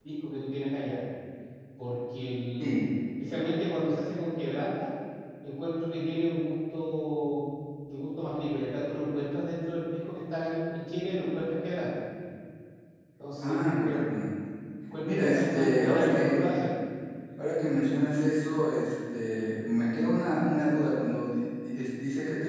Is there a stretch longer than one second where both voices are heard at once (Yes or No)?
Yes